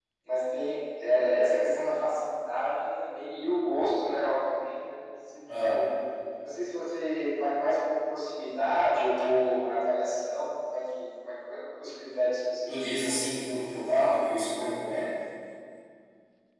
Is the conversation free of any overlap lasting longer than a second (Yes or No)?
Yes